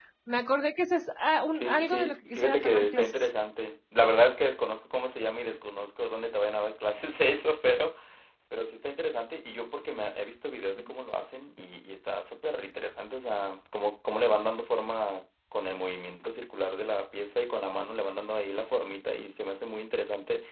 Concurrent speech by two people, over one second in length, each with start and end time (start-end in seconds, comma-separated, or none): 1.5-3.1